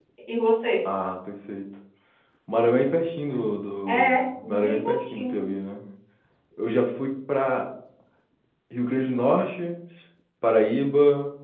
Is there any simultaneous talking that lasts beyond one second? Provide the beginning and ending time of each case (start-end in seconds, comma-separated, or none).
3.9-5.4